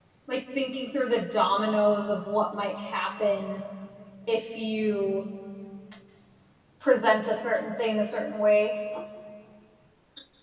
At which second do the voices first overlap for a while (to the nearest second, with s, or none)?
none